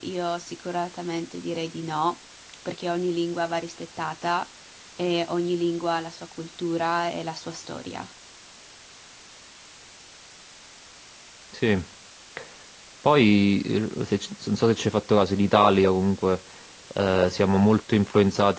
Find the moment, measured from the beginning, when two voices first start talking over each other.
none

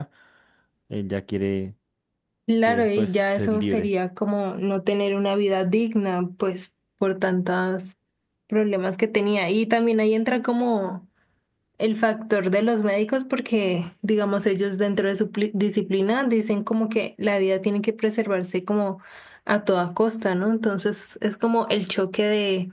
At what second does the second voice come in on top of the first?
3 s

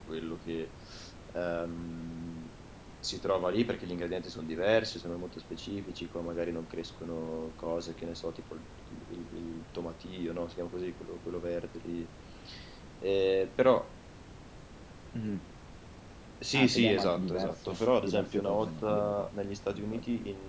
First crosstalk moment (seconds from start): 17 s

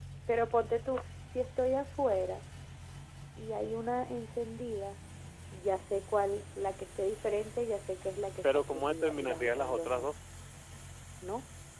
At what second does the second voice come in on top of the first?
8 s

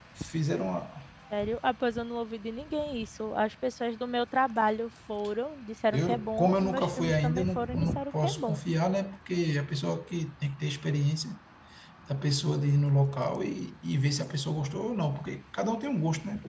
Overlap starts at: 6 s

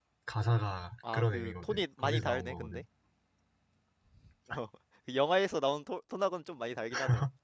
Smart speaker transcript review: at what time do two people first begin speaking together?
1 s

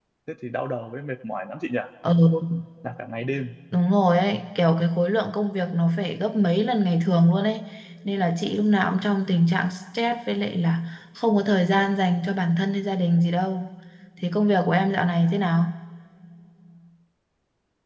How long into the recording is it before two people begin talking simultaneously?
none

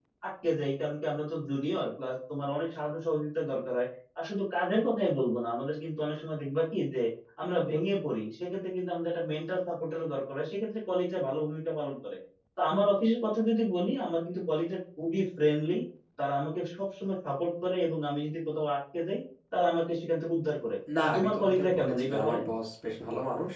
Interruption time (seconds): 21 s

